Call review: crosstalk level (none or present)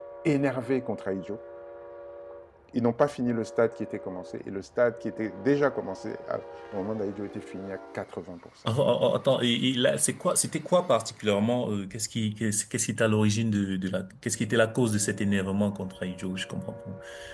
none